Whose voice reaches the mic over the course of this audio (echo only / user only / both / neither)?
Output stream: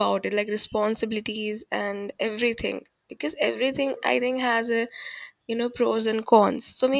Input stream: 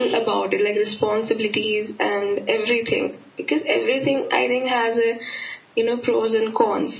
echo only